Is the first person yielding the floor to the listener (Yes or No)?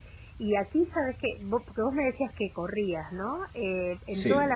No